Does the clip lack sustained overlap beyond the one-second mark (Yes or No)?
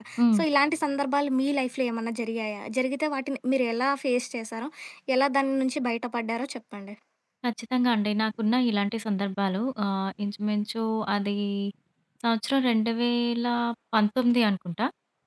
Yes